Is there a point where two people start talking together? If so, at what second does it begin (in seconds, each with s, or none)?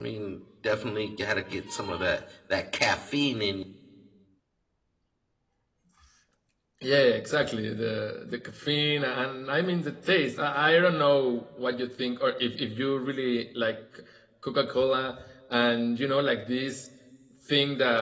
none